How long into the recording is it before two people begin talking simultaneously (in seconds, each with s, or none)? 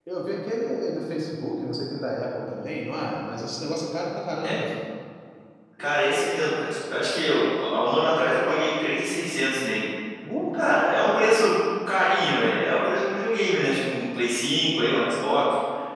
none